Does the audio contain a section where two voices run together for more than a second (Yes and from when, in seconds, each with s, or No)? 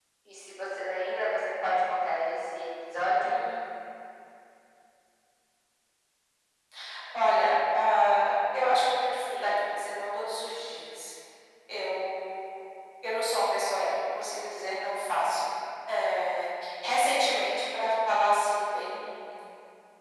No